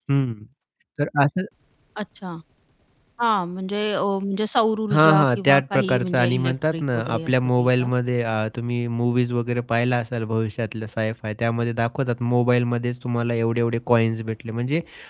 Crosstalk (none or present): present